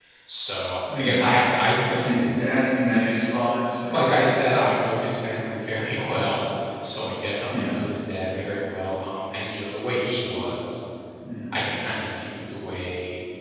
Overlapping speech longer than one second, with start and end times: none

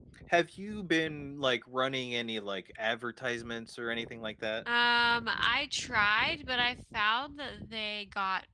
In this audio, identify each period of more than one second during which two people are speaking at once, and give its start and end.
none

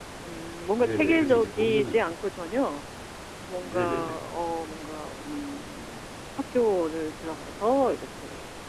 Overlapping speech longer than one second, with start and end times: 0.8-2.0

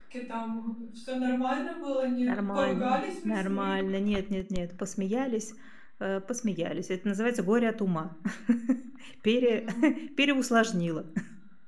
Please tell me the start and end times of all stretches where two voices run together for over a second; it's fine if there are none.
2.3-3.7

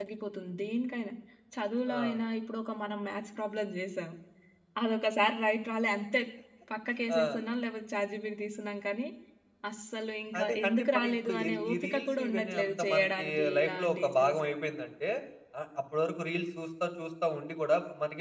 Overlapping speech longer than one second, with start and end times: 10.4-14.3

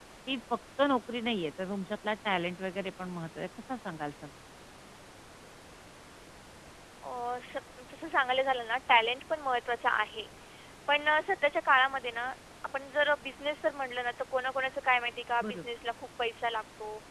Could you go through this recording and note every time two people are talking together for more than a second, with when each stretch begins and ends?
none

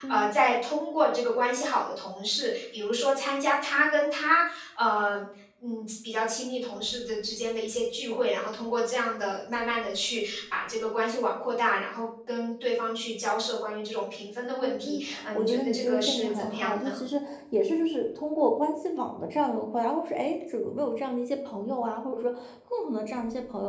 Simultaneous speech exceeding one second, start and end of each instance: 14.6-17.0

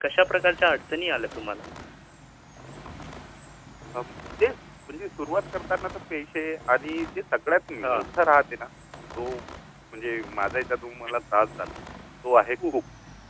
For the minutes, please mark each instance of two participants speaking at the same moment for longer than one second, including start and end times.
none

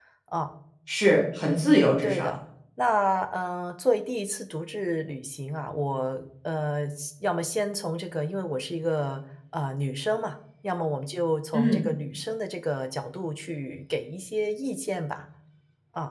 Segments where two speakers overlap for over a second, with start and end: none

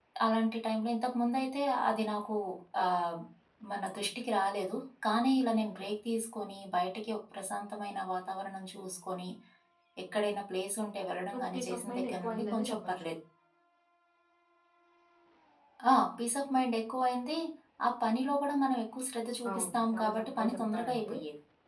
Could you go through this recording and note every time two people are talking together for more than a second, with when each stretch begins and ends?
11.3-12.9, 19.5-21.1

